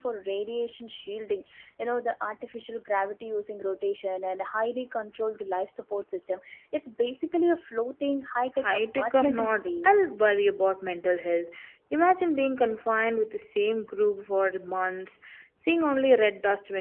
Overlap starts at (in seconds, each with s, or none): 8.6 s